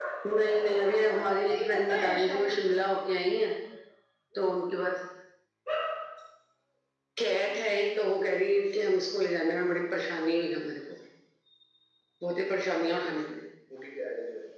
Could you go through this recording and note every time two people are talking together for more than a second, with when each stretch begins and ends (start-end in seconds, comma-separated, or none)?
0.6-2.5